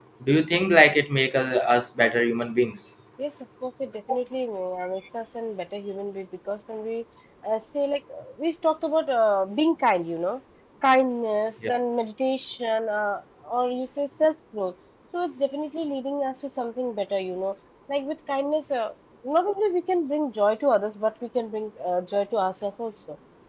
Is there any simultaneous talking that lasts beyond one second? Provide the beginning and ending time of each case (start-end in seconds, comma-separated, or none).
none